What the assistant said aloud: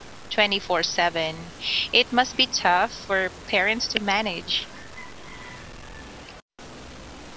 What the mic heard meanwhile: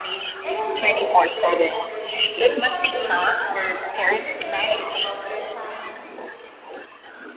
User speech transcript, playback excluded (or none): And I hope today's generations will someday look back and feel the same way about their time.